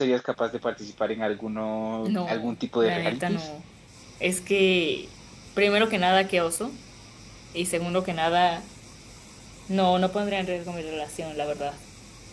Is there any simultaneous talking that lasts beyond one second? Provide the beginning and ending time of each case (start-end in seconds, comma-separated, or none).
2.0-3.5